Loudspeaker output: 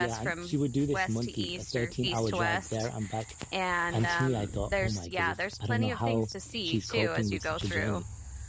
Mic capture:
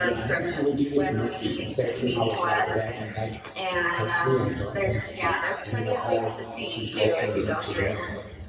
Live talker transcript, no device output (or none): none